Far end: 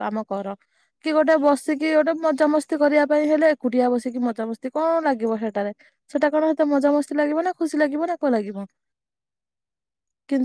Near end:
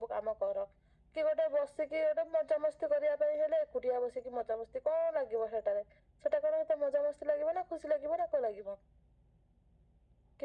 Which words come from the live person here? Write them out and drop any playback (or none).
none